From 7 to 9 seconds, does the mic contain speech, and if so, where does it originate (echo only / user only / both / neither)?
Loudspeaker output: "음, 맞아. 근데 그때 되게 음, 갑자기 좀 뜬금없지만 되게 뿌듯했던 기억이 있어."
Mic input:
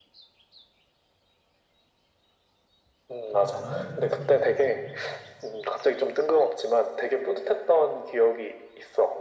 echo only